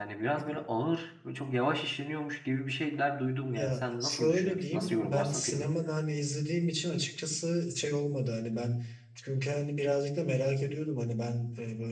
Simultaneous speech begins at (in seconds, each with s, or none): 3.5 s